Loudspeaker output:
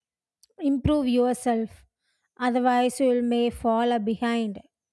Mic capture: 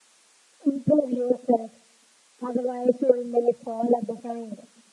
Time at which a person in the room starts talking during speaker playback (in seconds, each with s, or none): none